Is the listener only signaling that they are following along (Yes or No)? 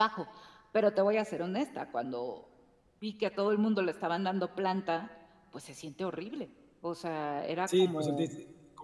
No